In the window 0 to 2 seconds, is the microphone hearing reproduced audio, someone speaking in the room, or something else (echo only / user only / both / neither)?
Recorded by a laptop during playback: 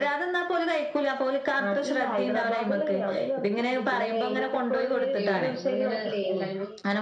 echo only